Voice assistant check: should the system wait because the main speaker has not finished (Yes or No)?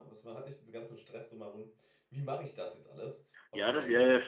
No